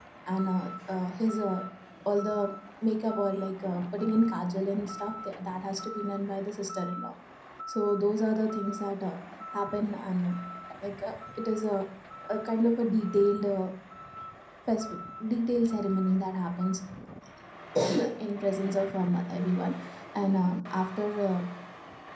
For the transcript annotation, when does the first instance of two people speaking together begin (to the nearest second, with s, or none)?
none